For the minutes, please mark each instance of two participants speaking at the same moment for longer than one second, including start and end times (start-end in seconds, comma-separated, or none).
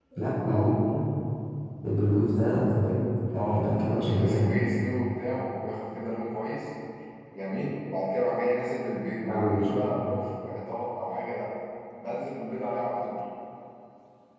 3.3-4.5